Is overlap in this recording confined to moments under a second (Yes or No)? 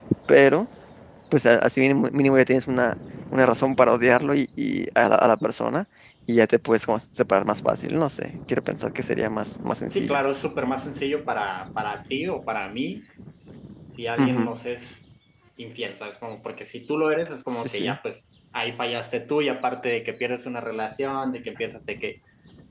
Yes